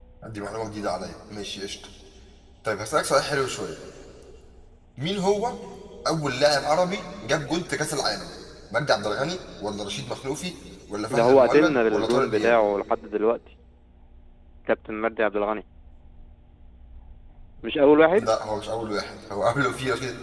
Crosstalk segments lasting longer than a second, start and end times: 11.2-12.6

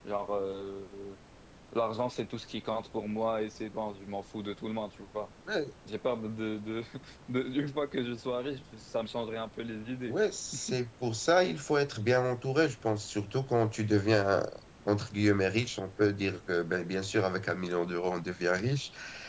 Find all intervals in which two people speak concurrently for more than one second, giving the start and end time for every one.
none

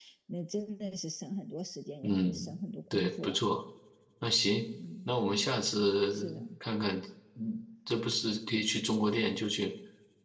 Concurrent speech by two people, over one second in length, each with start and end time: none

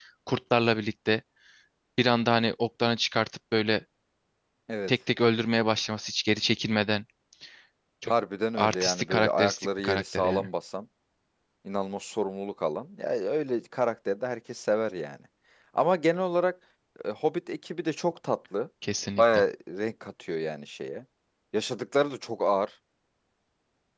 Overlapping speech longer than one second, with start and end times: 8.6-10.5

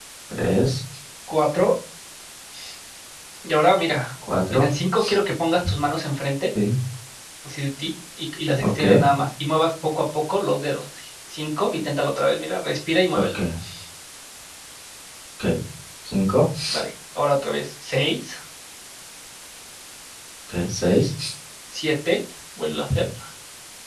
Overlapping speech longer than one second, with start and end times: none

